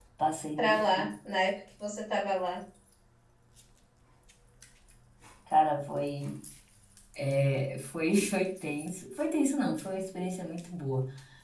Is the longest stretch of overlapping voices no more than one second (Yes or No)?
Yes